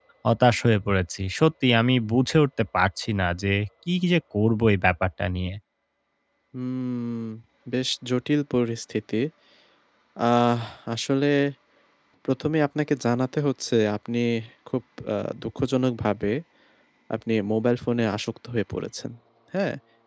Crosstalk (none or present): none